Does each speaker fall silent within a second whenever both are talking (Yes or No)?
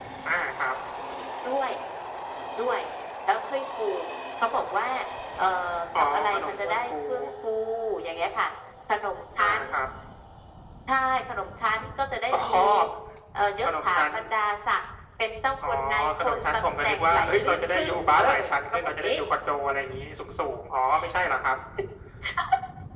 No